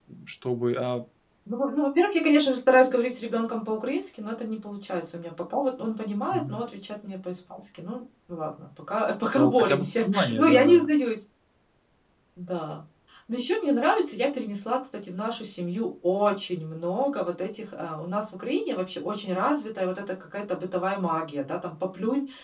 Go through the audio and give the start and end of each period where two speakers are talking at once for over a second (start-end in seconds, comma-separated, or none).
9.3-10.9